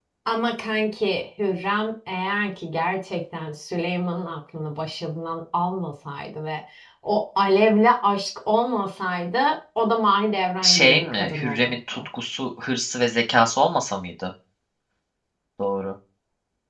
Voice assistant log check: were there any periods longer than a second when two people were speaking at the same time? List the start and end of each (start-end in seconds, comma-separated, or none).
10.6-12.0